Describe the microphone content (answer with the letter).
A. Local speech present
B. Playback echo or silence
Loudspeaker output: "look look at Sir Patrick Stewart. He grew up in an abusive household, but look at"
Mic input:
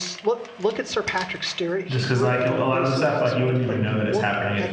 A